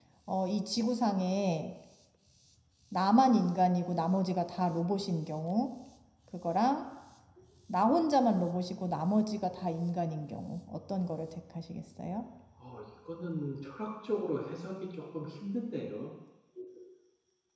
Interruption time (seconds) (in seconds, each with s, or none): none